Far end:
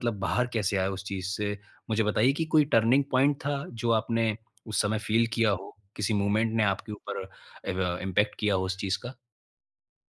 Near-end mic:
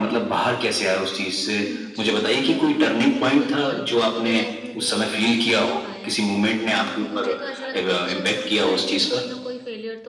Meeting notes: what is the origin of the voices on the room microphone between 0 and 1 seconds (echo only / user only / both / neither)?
echo only